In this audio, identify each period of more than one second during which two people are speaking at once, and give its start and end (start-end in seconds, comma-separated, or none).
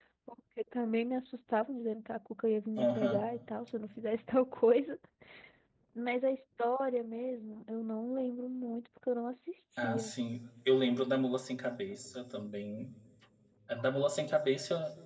none